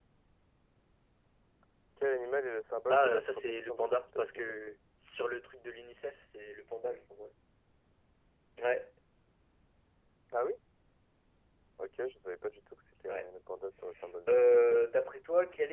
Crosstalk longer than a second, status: present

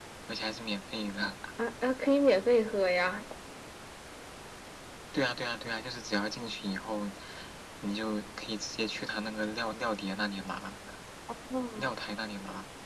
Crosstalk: none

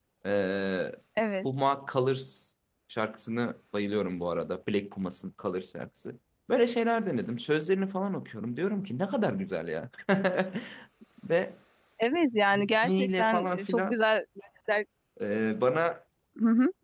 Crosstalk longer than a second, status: present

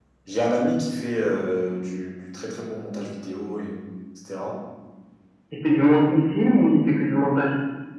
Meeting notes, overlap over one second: none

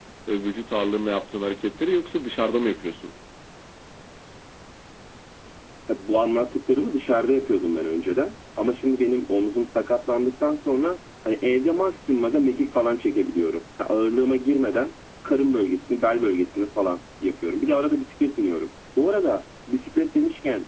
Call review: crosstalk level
none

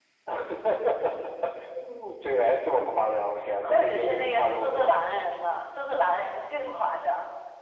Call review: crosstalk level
present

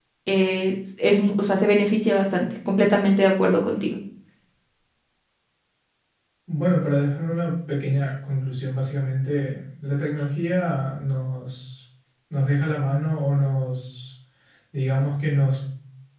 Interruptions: none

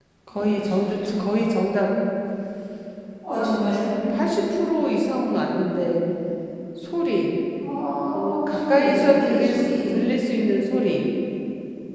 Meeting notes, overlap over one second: present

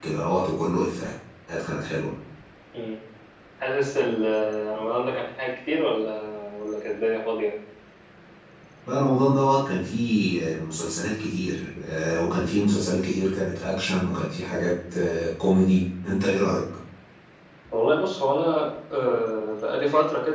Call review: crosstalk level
none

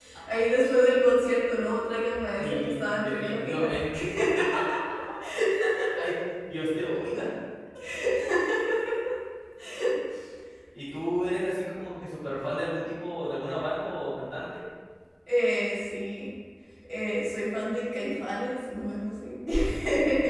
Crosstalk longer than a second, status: present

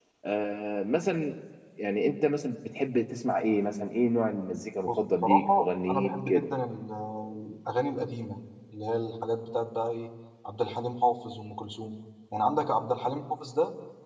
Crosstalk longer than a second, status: present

